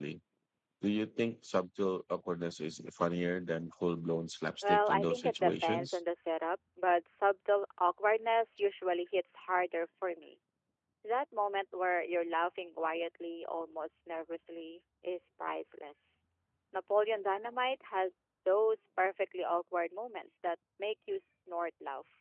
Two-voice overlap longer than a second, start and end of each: 4.6-6.0

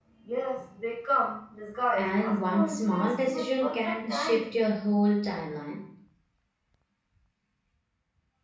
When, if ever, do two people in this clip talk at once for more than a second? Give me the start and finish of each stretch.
2.0-4.5

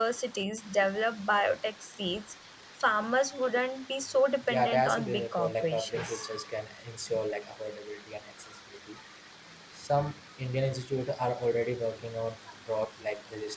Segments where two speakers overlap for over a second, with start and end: 4.5-6.3

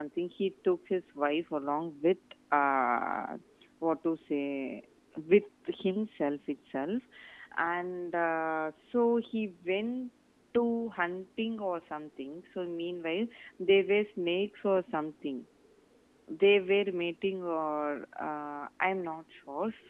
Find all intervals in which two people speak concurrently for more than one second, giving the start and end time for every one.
none

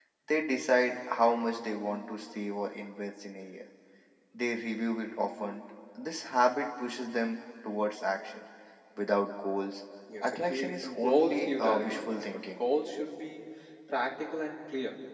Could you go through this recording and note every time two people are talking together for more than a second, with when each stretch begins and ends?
10.2-12.4

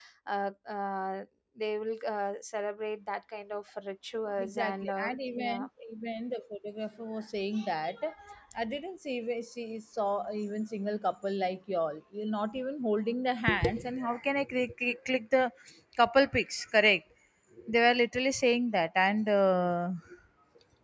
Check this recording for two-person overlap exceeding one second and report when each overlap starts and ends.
4.4-5.7

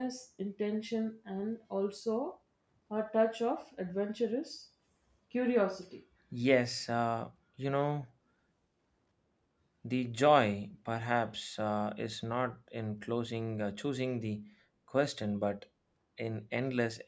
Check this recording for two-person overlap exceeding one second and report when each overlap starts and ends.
none

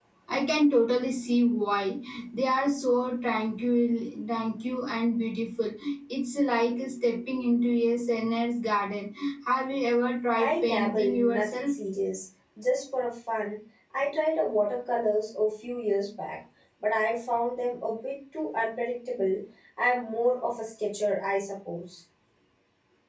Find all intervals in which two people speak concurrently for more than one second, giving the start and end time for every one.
10.4-11.7

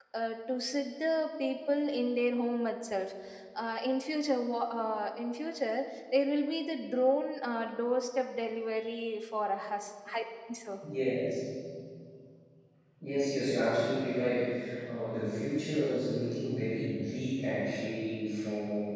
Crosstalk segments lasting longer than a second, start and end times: none

